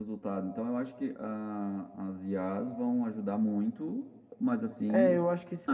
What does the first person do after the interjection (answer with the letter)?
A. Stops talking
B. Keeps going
A